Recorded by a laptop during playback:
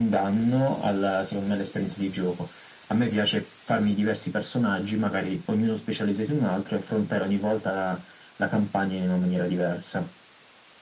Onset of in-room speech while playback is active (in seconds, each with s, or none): none